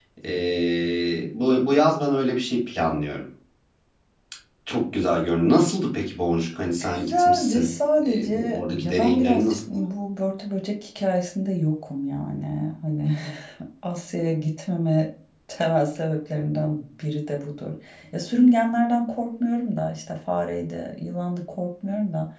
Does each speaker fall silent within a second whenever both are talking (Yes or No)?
No